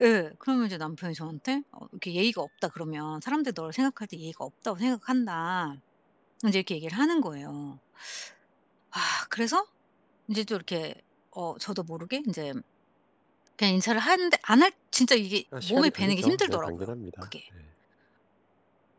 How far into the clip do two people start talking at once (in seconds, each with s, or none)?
15.5 s